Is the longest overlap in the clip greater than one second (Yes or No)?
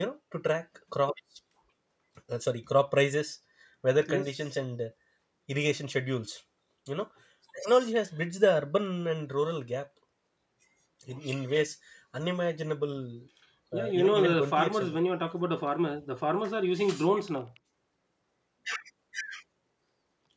Yes